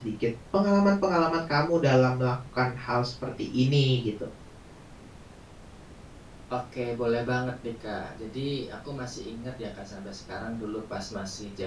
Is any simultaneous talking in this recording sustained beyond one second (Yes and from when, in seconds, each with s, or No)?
No